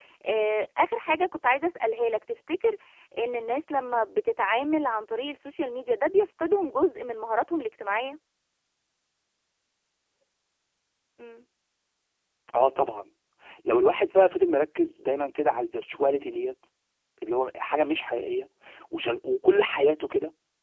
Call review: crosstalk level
none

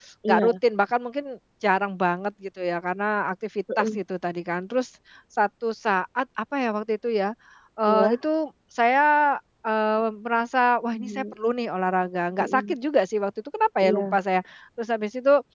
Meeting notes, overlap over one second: none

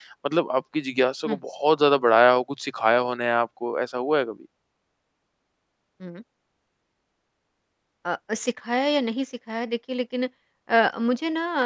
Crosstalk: none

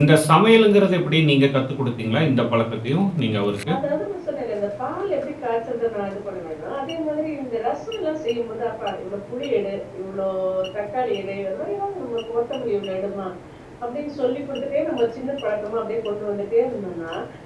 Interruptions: none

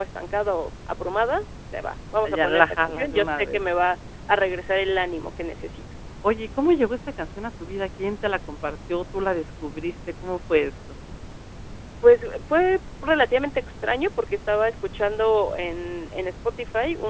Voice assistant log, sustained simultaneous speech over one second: present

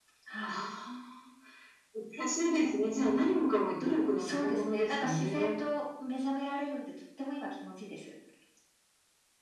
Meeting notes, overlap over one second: present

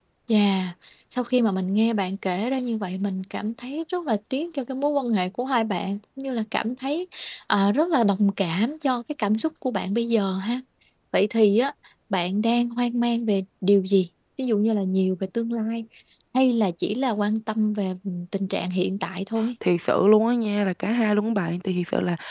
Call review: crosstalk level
none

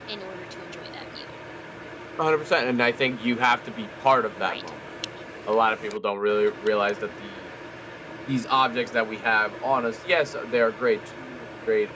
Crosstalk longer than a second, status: none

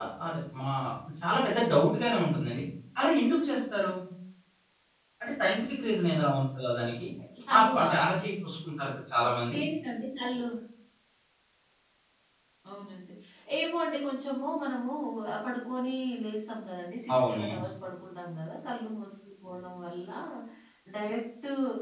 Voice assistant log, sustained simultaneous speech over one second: none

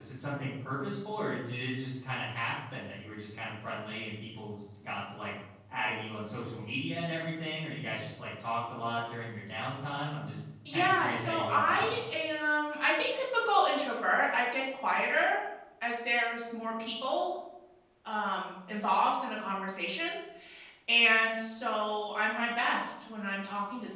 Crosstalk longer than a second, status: present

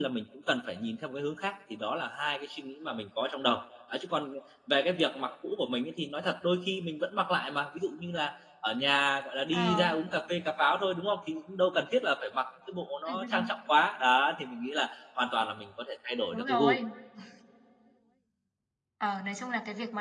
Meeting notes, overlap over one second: none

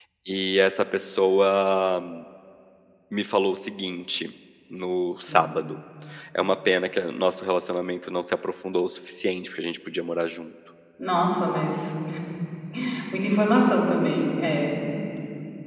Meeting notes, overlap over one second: none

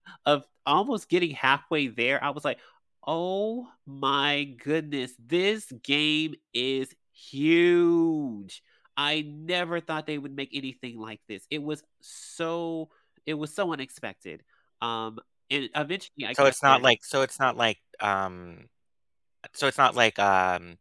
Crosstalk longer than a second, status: none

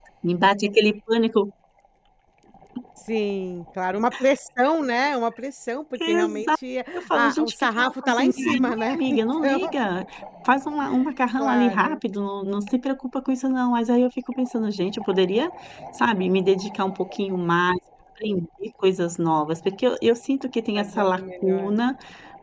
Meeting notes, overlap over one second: present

